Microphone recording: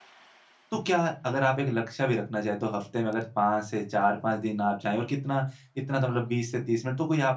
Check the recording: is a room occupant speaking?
Yes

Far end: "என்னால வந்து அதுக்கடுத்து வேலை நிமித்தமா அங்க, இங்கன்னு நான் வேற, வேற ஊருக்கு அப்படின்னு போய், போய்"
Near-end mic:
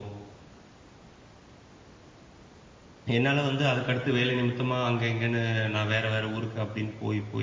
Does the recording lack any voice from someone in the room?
Yes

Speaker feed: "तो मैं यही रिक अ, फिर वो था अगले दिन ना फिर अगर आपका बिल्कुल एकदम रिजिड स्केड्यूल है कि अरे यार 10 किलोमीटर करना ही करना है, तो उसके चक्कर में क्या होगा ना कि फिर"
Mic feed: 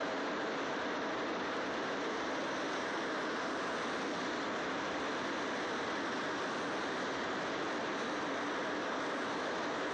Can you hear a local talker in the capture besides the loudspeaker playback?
No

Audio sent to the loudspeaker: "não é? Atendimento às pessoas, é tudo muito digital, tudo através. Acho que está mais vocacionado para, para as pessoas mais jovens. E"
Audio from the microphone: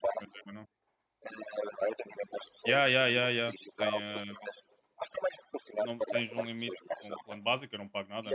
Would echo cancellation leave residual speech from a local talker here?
Yes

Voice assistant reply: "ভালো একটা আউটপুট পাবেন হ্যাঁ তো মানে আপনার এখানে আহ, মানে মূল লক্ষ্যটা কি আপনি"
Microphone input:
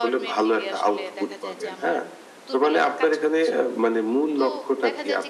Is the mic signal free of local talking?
No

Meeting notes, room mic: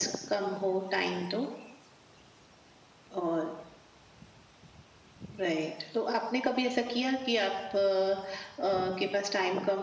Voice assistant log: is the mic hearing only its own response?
Yes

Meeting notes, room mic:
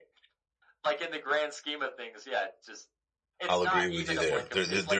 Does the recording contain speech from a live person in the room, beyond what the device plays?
Yes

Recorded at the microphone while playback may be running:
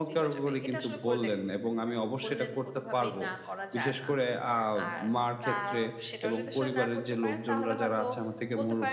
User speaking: Yes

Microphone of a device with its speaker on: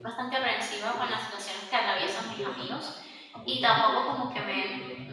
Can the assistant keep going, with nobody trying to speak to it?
No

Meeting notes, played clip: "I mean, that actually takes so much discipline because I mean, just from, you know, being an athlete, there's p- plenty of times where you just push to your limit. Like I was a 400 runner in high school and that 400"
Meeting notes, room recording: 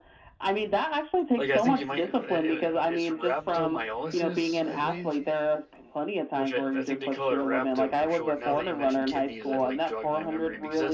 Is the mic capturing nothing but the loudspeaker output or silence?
No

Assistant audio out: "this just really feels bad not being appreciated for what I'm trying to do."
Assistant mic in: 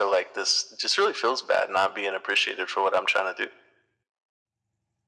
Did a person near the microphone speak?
No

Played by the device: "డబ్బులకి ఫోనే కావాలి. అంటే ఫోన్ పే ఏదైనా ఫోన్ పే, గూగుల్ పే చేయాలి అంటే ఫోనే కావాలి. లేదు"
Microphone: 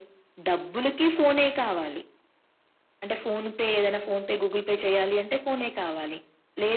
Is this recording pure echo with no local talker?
Yes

